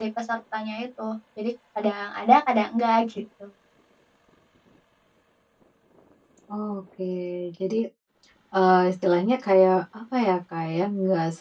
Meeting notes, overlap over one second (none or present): none